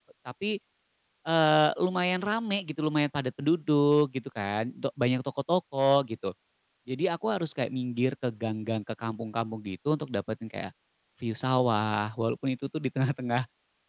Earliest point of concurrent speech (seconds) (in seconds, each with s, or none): none